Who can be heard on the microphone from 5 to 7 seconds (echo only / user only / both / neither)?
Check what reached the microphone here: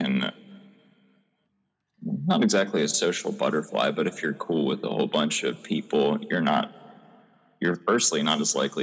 echo only